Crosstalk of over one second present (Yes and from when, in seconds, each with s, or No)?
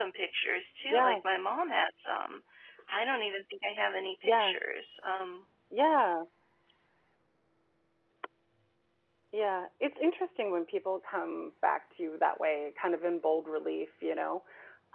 No